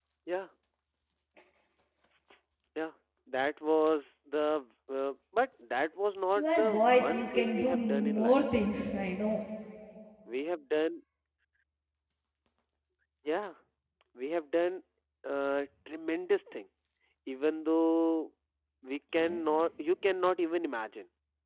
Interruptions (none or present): present